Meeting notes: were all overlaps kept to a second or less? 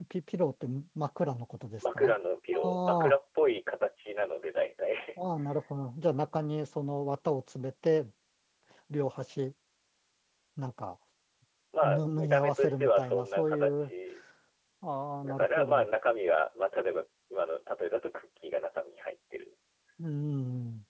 No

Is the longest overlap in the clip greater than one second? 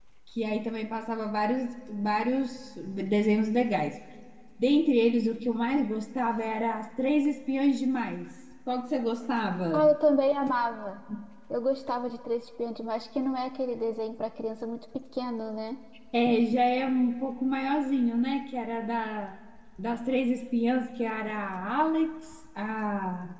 No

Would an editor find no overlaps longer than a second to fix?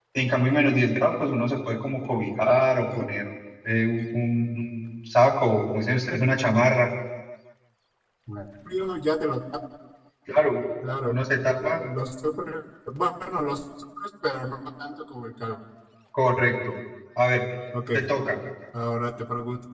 Yes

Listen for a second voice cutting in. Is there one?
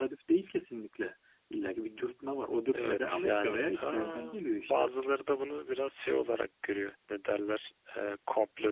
Yes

